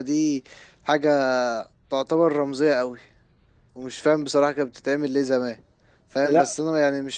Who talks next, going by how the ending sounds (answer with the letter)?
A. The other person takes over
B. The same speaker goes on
B